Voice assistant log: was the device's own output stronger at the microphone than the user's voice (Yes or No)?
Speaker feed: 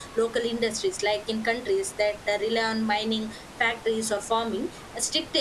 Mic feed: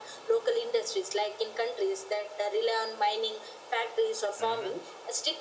Yes